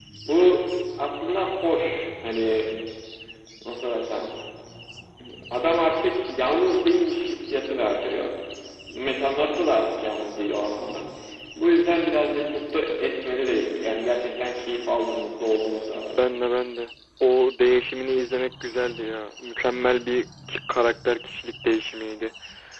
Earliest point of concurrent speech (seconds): none

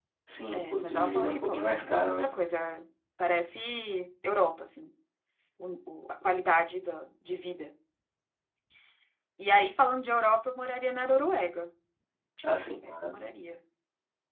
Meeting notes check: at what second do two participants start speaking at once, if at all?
0.5 s

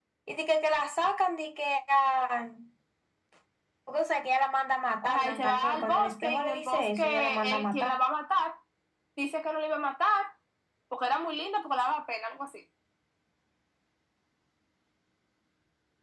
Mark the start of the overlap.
5.0 s

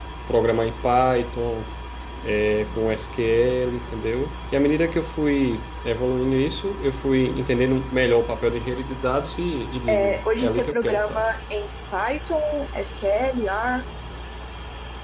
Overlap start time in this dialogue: 9.9 s

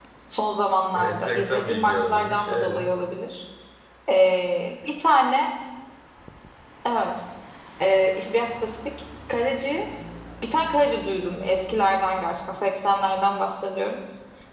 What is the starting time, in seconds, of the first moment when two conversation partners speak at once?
1.0 s

